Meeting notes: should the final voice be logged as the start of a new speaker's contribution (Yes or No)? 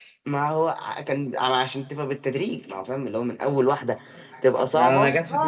Yes